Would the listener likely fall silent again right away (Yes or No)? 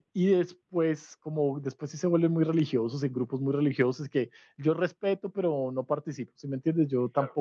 Yes